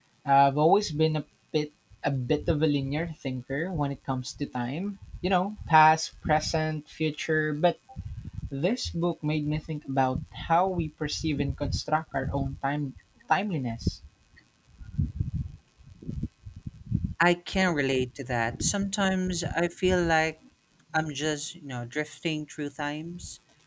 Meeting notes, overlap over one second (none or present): none